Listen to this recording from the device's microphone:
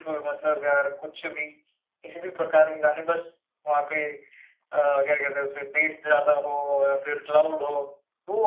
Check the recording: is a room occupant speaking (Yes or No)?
No